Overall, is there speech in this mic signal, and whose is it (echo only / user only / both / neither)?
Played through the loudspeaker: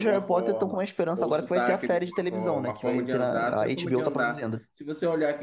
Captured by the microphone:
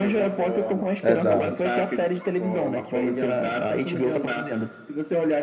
both